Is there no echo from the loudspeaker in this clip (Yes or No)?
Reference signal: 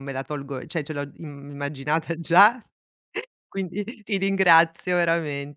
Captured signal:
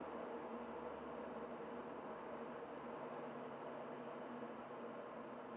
Yes